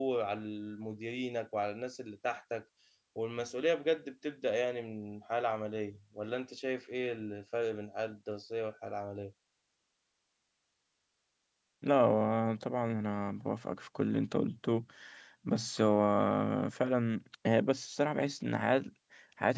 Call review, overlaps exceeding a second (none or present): none